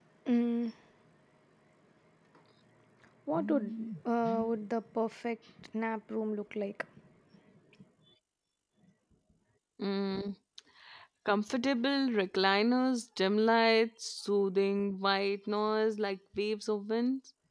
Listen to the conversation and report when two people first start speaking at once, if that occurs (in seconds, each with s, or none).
none